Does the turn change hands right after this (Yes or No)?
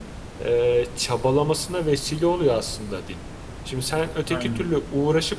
No